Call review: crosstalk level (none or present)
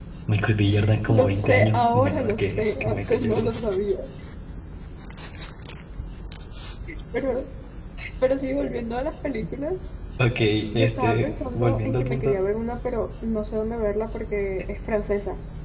present